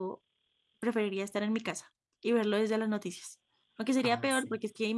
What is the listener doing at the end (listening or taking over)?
listening